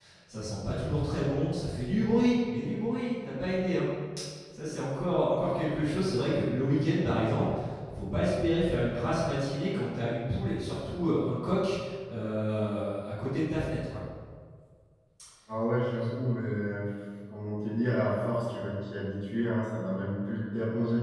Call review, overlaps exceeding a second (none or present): none